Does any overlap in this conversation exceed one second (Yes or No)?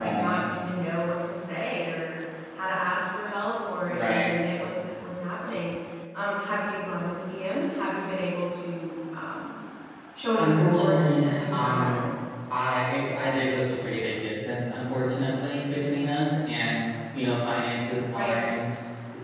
Yes